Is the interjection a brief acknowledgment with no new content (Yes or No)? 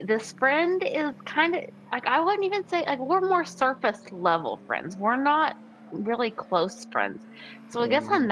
Yes